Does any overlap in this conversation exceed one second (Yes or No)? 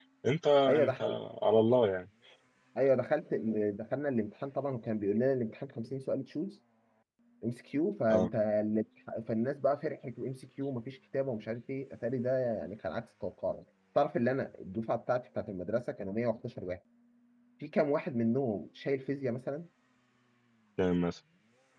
No